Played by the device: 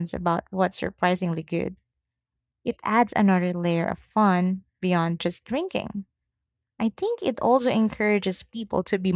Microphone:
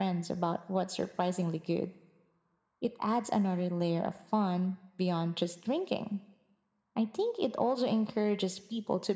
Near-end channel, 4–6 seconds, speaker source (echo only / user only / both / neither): echo only